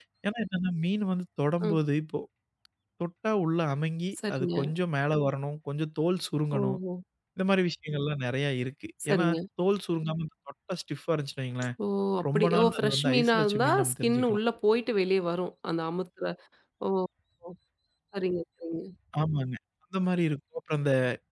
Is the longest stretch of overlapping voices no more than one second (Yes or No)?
No